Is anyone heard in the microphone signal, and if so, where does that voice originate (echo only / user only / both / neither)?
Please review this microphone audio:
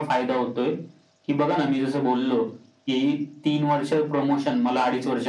echo only